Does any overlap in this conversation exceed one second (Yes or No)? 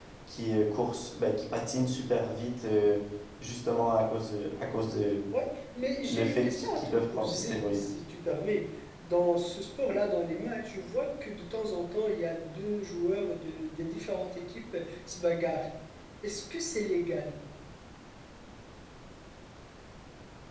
Yes